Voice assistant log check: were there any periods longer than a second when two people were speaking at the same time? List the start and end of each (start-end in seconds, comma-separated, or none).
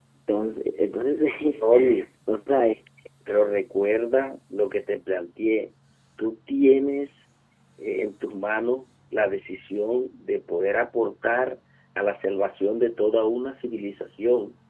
none